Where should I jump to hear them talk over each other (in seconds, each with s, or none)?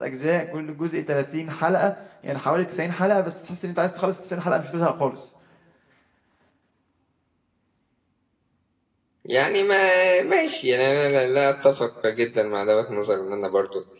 none